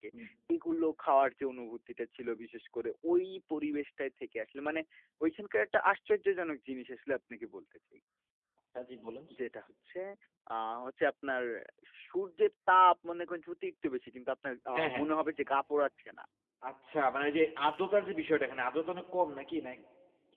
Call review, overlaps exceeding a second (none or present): none